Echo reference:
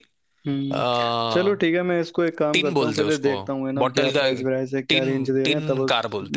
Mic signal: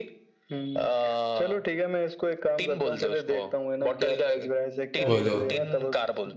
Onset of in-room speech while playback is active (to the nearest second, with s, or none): 5 s